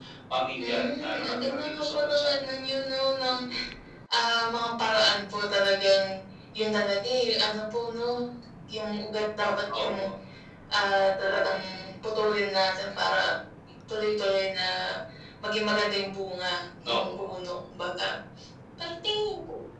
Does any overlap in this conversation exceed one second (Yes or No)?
Yes